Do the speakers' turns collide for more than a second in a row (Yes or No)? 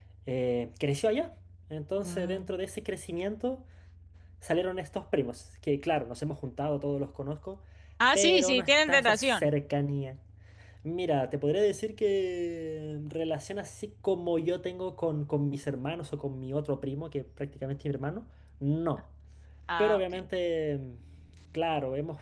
Yes